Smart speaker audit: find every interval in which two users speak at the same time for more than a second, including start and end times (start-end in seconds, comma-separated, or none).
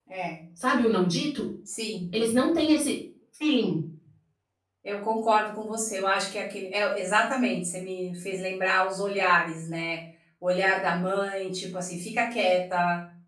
none